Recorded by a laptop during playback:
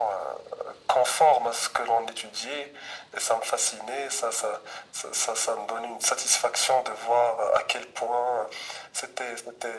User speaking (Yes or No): No